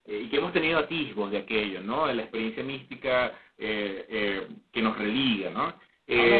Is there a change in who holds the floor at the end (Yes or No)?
Yes